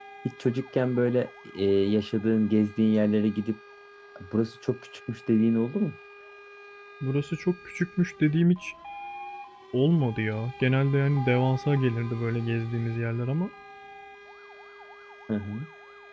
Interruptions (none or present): none